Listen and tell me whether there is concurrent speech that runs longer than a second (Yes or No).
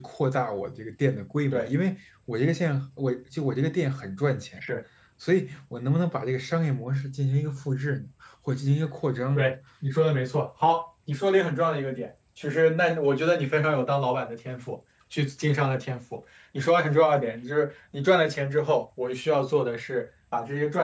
No